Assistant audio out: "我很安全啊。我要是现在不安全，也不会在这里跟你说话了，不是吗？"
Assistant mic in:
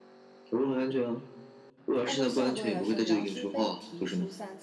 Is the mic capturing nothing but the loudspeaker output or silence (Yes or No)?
No